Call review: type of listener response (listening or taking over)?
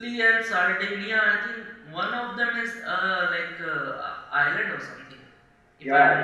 taking over